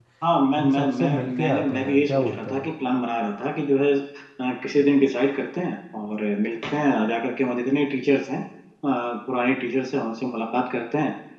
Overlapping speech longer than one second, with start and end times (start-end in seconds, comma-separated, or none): 0.6-2.7